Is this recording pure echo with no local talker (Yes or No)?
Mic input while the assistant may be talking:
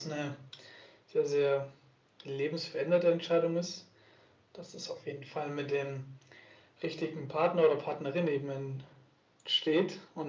Yes